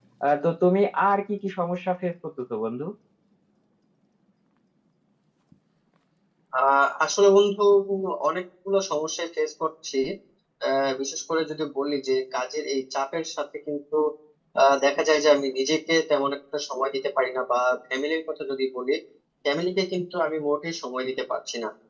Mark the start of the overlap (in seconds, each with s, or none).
none